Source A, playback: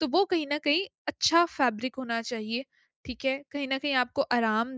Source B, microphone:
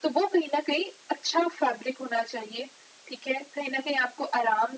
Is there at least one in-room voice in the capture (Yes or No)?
No